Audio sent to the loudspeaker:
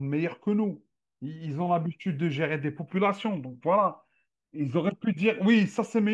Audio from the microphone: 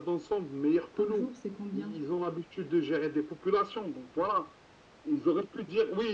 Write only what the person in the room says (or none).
Par jour, c'est combien?